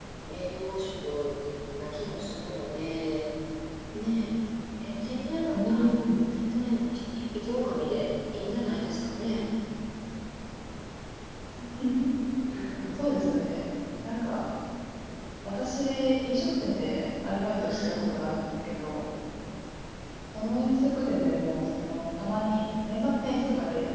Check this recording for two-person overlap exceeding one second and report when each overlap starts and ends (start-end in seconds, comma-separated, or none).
none